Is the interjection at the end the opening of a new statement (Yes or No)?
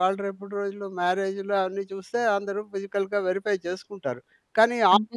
No